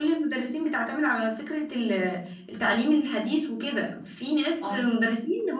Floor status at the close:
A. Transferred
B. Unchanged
B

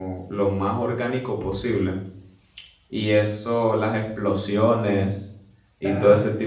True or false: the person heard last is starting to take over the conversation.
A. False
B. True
A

